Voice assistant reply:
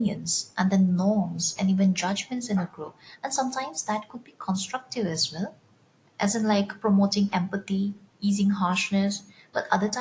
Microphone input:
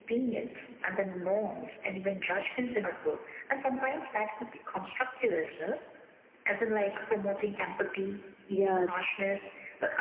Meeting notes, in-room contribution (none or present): present